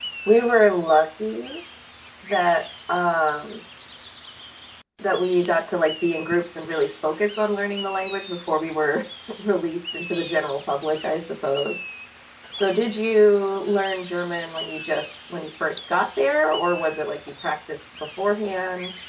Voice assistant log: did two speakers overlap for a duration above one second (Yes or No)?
No